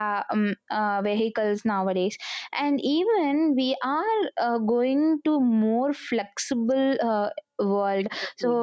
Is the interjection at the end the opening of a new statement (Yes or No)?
No